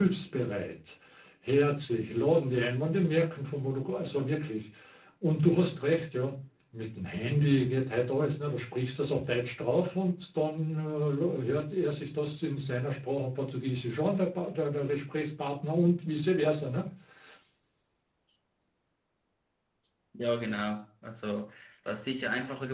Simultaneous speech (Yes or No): No